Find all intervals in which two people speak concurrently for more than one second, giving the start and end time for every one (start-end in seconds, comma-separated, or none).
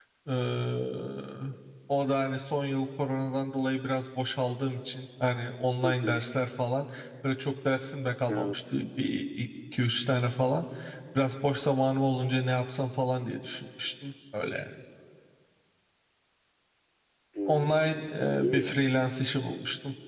17.5-18.8